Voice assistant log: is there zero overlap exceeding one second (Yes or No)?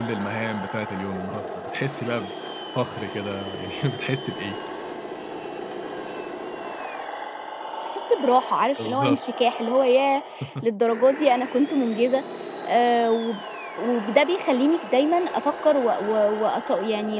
Yes